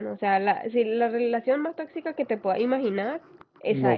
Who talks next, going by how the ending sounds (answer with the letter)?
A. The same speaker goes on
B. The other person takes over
B